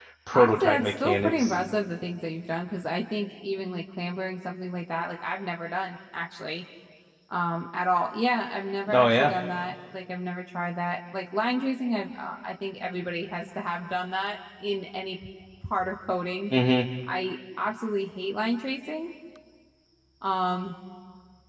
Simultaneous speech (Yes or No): Yes